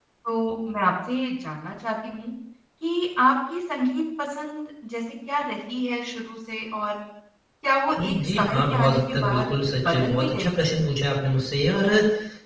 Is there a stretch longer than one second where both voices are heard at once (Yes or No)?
Yes